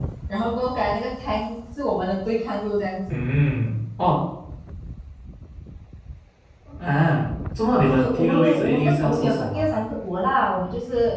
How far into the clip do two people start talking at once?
7.8 s

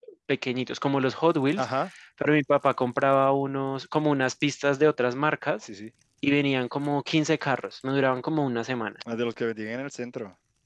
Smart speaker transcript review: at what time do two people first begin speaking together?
none

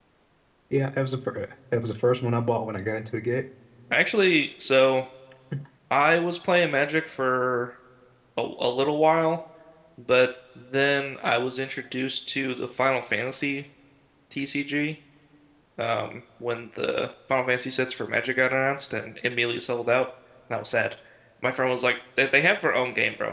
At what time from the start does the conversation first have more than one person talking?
none

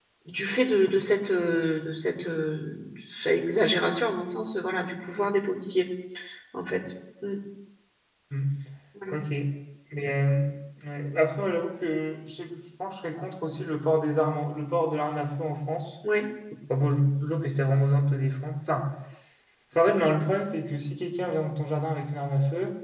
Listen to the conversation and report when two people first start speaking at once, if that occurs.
none

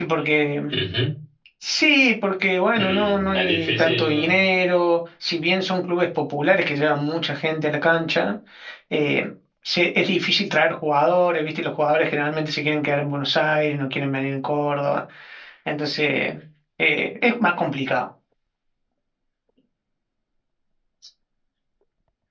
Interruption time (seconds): 2.8 s

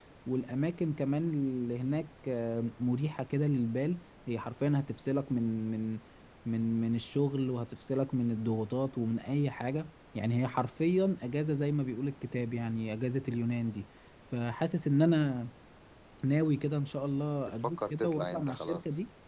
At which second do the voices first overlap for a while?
17.6 s

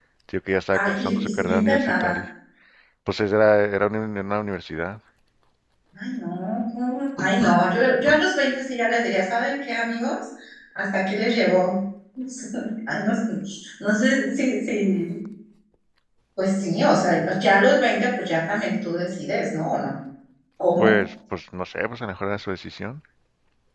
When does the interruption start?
0.7 s

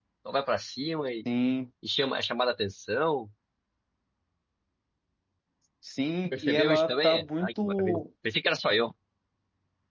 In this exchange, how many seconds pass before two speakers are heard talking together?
6.3 s

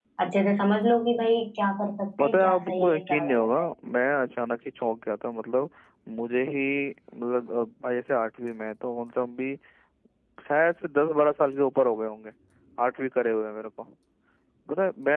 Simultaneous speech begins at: 2.2 s

